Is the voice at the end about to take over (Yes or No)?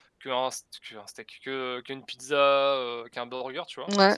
No